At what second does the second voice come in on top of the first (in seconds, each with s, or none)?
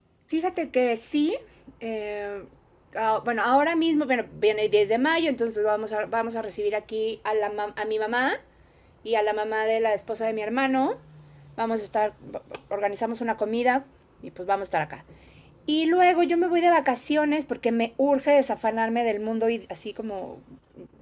none